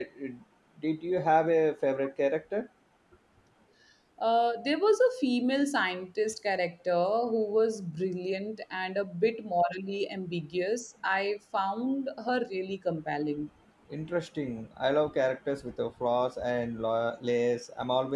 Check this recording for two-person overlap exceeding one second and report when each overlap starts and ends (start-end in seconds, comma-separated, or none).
none